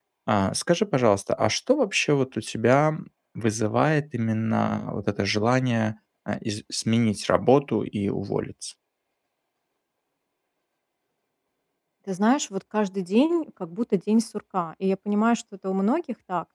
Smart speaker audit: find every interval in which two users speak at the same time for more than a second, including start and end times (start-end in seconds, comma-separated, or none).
none